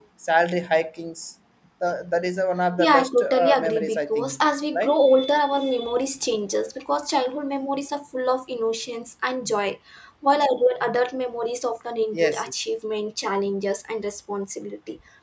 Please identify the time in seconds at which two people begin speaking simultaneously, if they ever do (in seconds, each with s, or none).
2.8 s